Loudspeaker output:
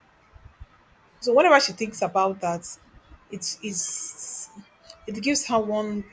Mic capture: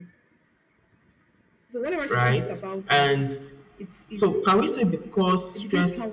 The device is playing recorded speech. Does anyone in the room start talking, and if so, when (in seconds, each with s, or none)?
2.1 s